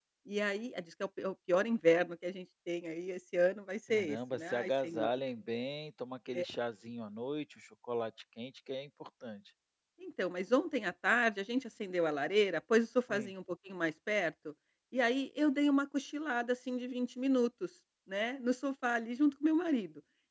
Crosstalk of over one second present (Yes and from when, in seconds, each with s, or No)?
Yes, from 3.9 s